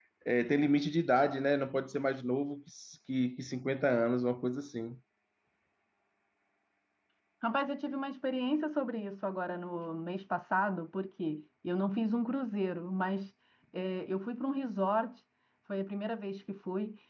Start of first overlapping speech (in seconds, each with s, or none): none